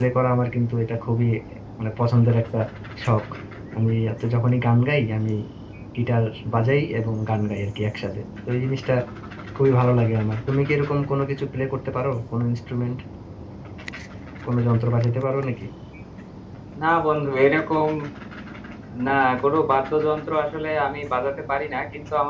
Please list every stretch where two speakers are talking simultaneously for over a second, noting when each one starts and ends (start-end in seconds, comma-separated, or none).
none